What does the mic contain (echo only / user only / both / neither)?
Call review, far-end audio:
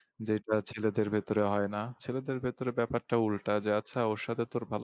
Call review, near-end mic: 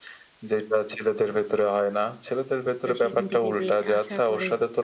both